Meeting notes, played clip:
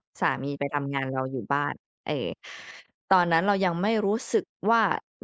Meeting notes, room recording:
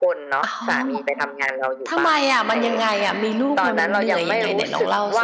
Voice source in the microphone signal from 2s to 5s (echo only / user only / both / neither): both